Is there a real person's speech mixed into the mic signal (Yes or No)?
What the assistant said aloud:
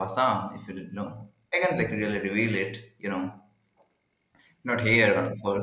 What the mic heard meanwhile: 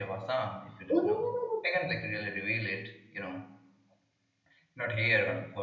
Yes